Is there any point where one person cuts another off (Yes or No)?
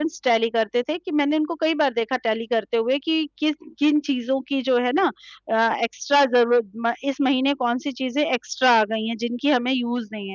No